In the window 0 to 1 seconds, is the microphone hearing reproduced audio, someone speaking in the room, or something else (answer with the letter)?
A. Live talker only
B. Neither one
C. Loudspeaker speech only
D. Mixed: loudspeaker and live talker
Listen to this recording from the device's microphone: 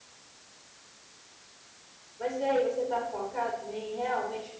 B